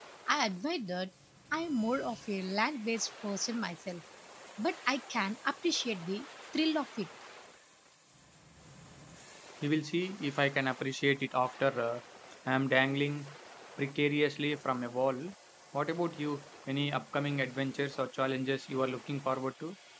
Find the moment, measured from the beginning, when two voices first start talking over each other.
none

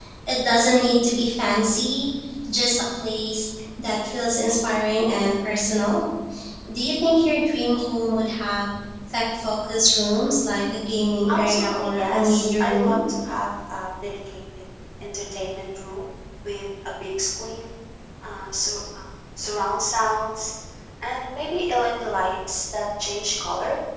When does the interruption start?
11.3 s

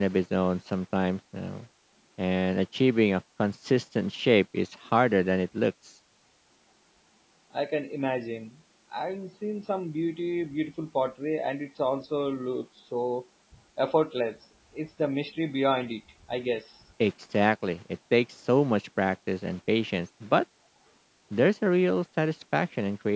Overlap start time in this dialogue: none

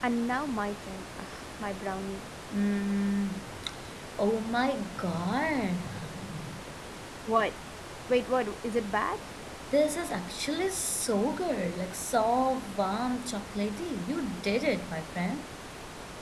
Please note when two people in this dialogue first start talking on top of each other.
none

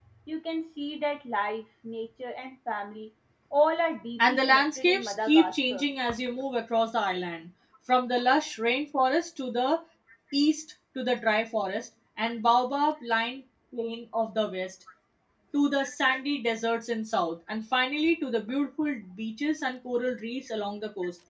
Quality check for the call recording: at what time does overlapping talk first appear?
4.2 s

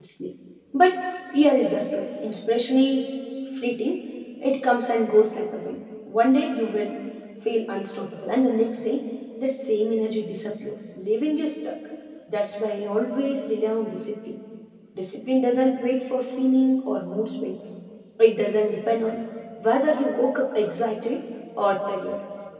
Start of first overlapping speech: none

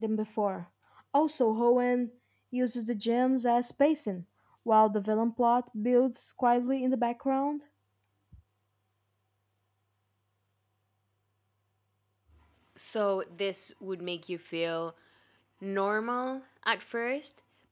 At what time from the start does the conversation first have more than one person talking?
none

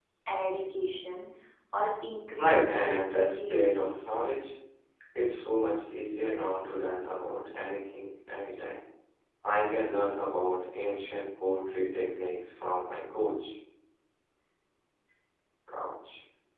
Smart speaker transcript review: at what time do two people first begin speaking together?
2.4 s

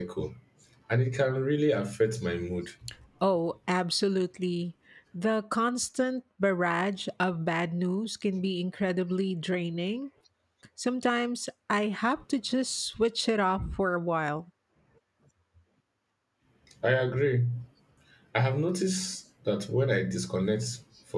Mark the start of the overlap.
none

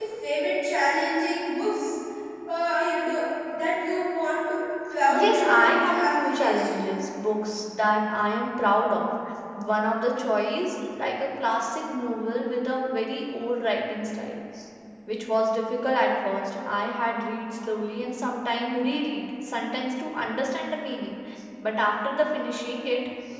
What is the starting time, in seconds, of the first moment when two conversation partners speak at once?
5.1 s

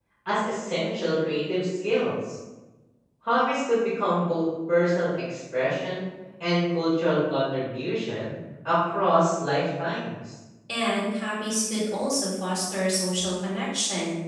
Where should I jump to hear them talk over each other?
none

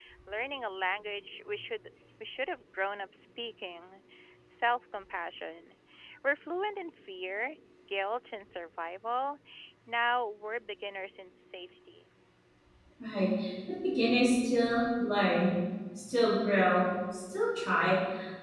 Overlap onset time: none

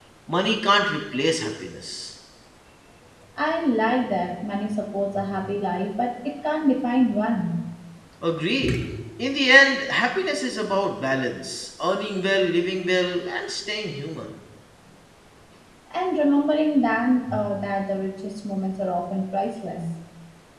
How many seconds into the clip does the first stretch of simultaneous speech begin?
none

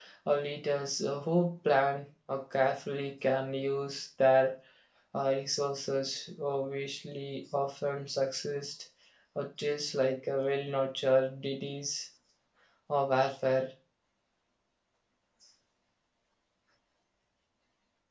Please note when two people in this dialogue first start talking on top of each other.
none

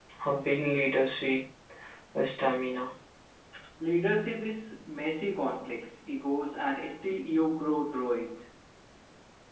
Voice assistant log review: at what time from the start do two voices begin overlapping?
none

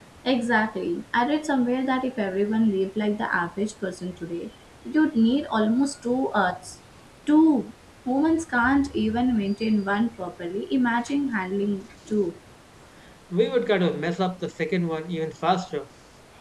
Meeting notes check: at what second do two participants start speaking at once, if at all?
none

